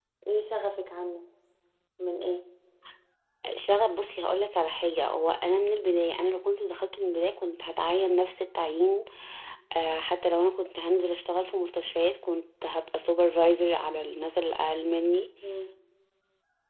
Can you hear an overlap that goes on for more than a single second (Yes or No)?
No